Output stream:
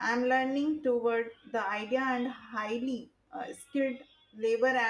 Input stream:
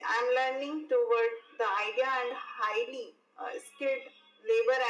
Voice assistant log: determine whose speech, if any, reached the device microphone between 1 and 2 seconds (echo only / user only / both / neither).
echo only